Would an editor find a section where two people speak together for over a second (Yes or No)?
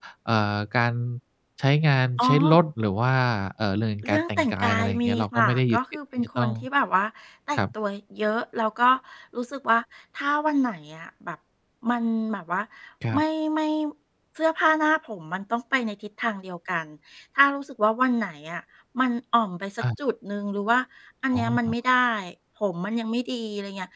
Yes